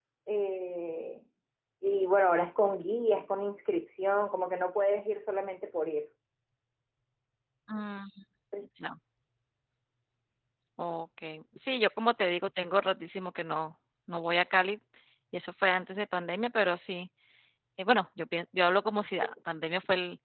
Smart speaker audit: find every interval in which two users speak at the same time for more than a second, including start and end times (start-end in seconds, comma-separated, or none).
none